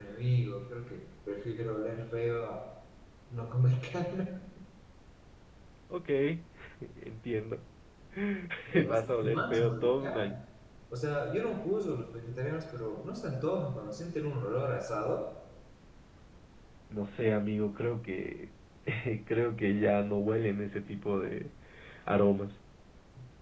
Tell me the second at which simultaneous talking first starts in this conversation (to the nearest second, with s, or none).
9 s